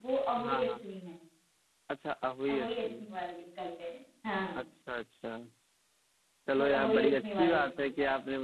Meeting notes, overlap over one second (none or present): present